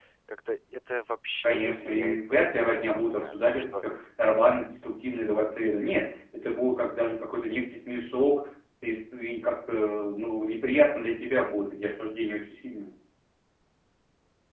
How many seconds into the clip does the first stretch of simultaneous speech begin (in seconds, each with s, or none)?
1.4 s